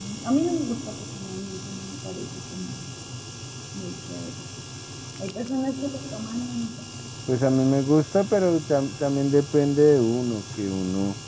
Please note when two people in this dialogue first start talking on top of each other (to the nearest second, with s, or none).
none